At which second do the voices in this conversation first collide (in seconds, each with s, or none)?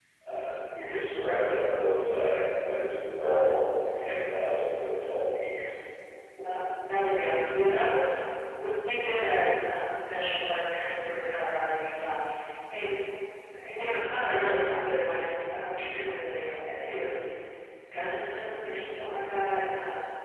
none